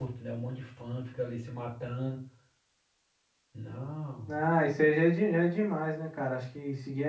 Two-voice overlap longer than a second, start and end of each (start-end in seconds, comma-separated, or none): none